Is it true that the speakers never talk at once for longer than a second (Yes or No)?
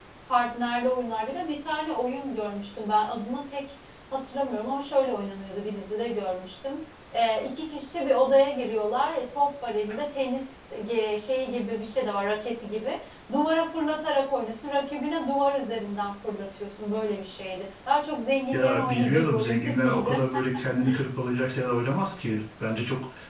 No